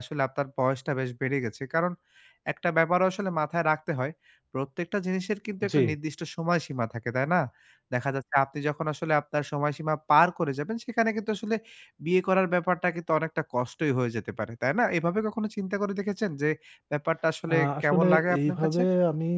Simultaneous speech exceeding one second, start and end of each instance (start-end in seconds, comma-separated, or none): 17.5-18.8